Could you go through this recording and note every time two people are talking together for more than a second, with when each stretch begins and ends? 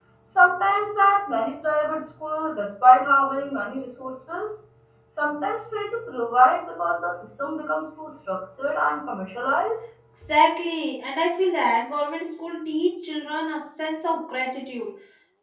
none

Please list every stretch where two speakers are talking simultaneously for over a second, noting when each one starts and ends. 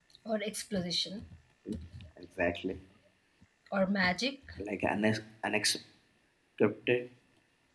none

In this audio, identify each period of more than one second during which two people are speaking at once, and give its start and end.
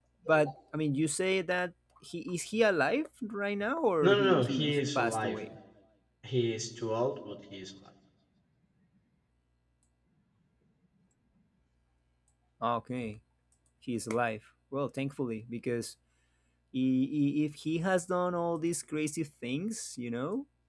4.0-5.4

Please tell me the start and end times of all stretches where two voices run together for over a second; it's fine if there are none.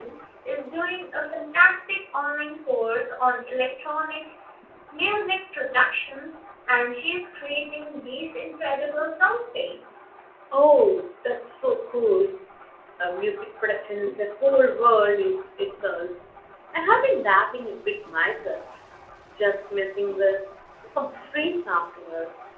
none

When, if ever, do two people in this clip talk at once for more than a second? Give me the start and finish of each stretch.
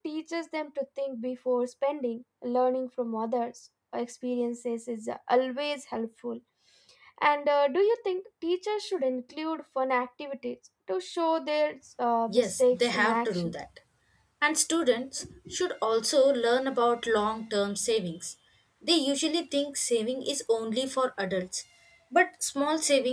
12.3-13.5

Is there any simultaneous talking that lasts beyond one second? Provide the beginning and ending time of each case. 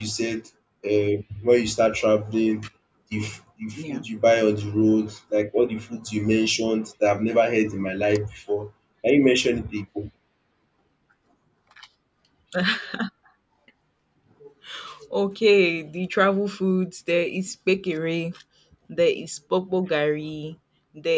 none

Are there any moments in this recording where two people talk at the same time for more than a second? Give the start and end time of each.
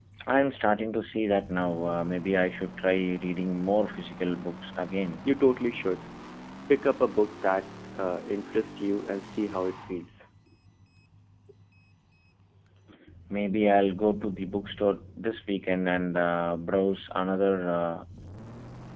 none

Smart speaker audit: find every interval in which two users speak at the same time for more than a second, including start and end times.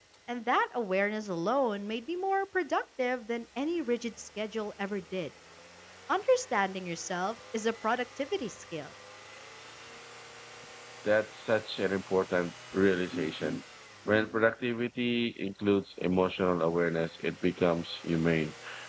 none

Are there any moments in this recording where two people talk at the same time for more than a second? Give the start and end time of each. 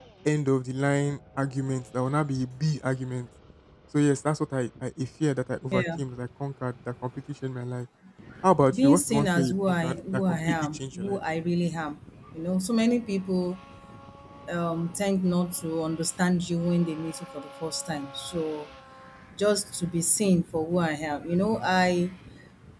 8.7-11.2

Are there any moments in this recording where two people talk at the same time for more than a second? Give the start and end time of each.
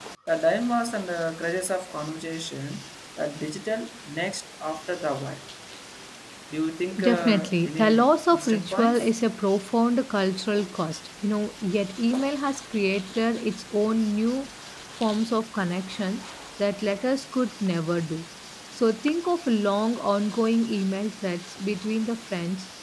7.0-9.1

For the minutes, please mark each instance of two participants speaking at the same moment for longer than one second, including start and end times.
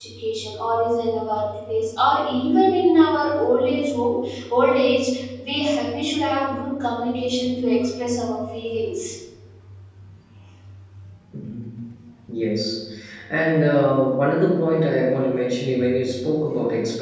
none

